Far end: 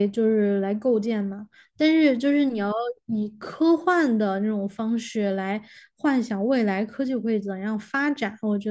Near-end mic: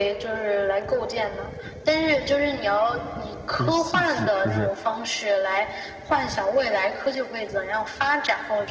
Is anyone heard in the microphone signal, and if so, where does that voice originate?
both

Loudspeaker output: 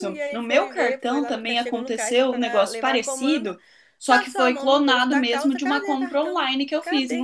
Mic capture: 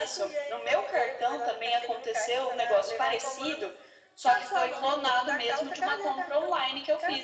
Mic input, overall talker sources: echo only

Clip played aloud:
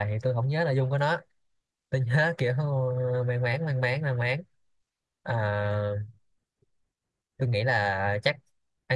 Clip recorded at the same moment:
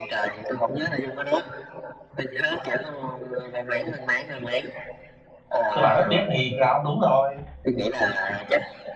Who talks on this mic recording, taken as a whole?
both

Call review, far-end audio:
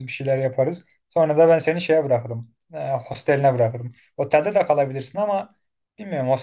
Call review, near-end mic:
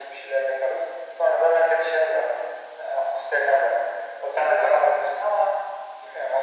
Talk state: echo only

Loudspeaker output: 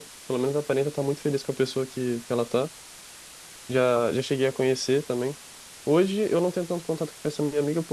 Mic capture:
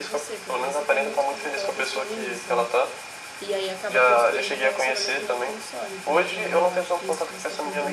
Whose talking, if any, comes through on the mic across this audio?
both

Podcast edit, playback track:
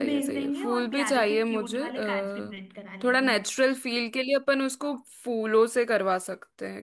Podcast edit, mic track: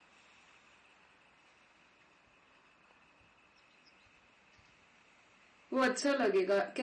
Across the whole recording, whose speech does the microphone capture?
user only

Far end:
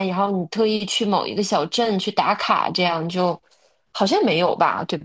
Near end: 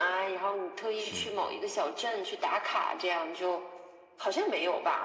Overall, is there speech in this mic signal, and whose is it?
both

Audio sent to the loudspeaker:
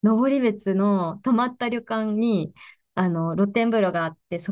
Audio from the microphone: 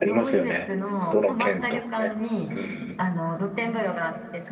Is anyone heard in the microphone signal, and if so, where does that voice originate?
both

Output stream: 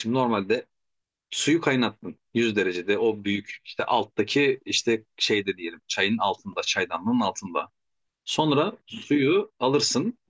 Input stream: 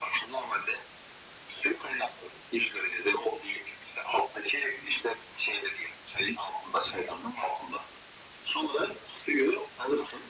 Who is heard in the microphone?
echo only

